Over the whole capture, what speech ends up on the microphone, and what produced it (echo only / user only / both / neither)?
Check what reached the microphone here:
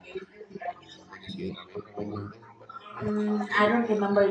both